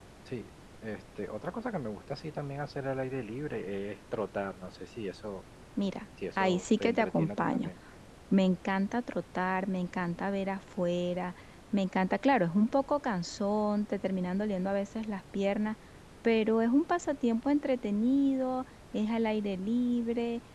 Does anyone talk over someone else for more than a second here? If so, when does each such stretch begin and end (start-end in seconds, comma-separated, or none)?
6.4-7.7